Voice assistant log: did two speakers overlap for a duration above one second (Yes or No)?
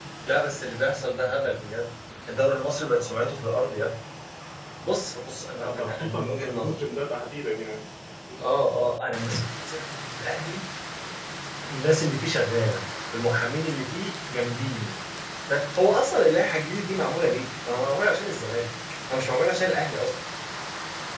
Yes